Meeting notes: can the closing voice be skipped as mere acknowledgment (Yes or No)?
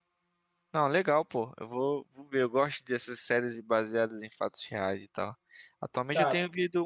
Yes